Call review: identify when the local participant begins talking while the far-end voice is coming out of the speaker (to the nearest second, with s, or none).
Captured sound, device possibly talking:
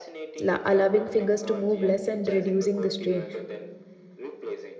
0 s